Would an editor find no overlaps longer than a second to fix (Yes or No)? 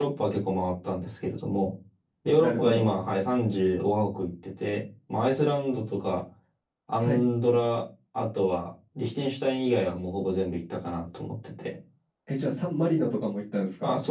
Yes